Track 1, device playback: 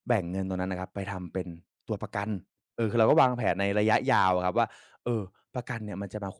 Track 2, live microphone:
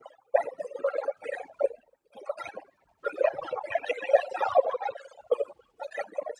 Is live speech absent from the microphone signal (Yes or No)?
Yes